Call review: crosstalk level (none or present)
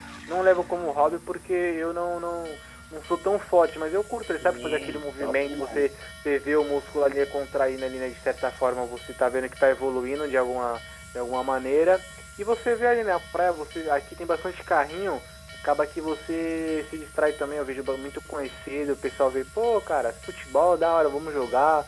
present